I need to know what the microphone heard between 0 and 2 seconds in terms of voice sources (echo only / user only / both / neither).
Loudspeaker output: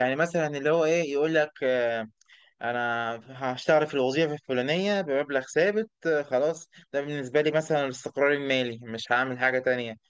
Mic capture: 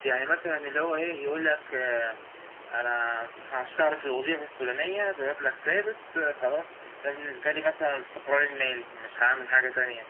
echo only